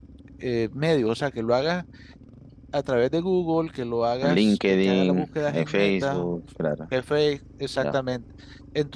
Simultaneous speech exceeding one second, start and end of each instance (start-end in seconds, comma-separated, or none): 4.2-6.3